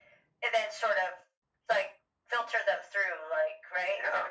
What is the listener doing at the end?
taking over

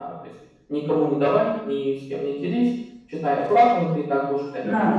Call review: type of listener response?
taking over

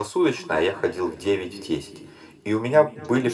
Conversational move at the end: listening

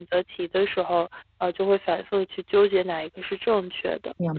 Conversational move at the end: taking over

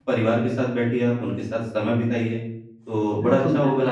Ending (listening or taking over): taking over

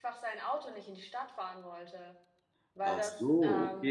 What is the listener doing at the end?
taking over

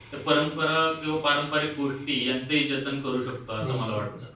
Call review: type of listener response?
taking over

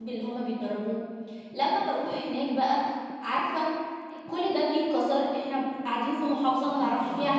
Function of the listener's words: listening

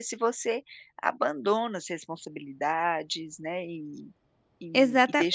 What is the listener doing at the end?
taking over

